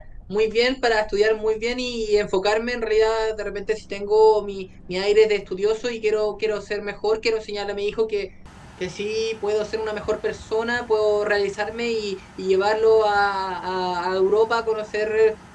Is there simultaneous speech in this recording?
No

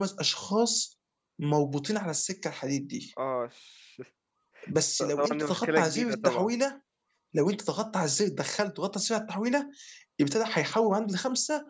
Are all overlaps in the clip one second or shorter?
No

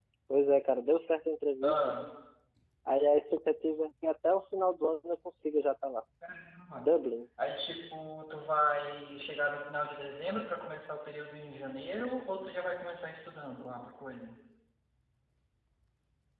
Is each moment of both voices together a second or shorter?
Yes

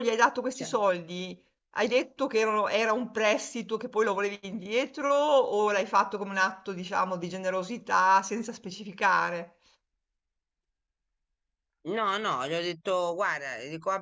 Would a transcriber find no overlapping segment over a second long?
Yes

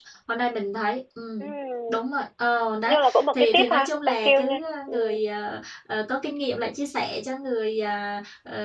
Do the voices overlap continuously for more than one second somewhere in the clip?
Yes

